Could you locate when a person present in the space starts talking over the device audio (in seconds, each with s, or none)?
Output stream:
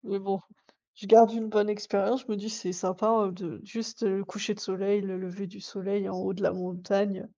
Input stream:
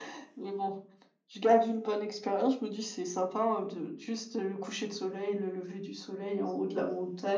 none